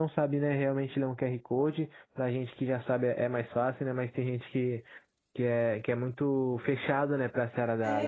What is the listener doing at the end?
taking over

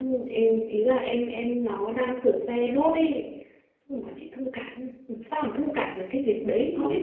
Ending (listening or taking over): taking over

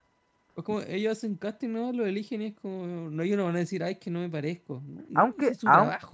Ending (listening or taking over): taking over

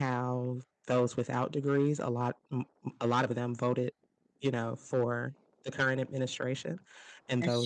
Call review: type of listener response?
listening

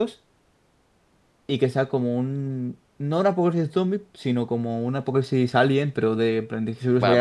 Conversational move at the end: taking over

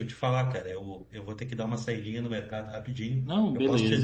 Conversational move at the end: listening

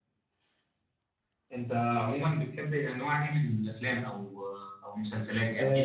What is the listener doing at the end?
taking over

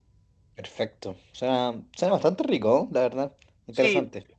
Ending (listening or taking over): taking over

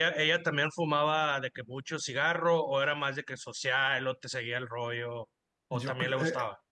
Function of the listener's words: taking over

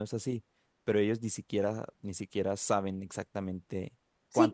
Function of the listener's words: taking over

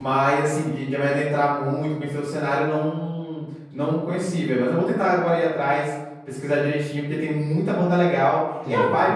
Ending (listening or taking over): listening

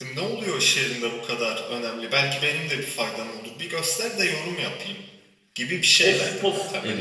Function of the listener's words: taking over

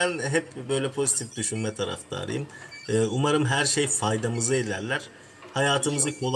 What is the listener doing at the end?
listening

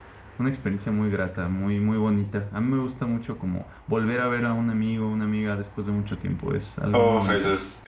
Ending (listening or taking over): taking over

